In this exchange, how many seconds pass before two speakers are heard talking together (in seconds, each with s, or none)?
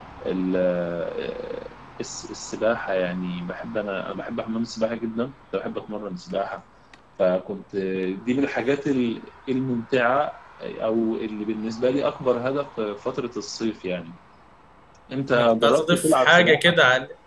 15.3 s